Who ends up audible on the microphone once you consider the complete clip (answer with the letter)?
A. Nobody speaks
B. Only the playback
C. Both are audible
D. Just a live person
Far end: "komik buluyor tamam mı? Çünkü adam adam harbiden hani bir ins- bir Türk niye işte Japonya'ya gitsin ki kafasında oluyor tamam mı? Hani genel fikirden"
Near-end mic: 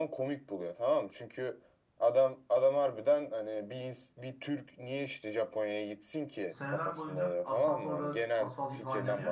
C